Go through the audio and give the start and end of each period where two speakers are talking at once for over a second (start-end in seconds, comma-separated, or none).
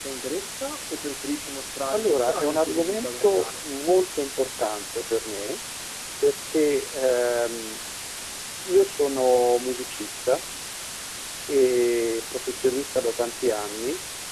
1.9-3.7